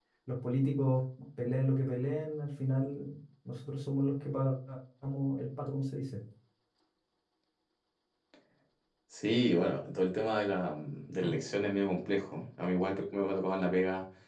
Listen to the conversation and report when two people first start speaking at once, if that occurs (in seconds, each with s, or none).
none